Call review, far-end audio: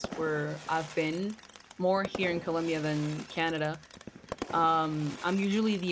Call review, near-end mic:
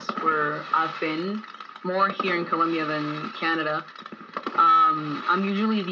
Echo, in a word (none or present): present